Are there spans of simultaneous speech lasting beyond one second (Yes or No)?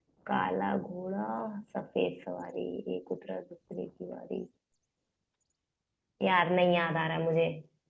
No